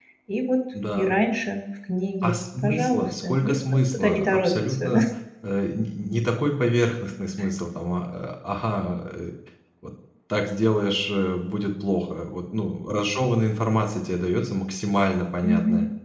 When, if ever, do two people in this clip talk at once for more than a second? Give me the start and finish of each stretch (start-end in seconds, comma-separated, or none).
2.2-5.0